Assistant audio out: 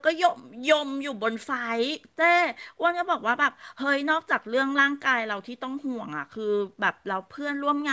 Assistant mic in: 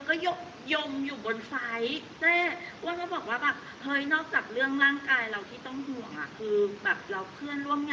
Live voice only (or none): none